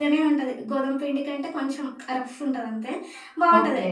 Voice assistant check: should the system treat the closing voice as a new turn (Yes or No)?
No